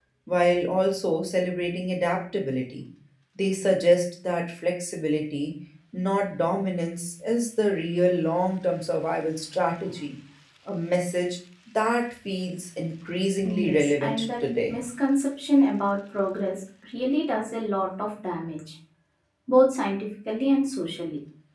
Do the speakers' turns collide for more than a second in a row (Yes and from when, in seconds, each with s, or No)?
Yes, from 13.4 s